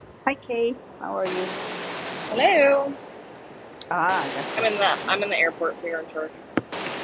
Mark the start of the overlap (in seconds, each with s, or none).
none